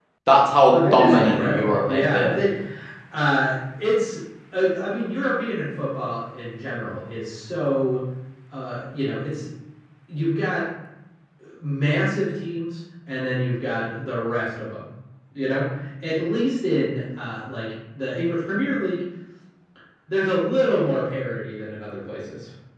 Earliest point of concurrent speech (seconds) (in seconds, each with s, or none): 0.7 s